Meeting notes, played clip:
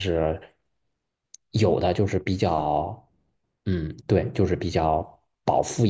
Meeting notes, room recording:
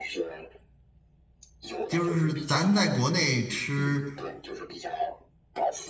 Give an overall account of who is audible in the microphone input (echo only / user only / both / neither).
both